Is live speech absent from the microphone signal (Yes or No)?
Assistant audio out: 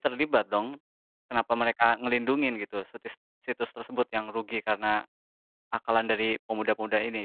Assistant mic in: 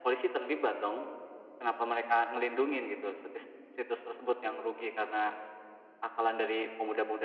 Yes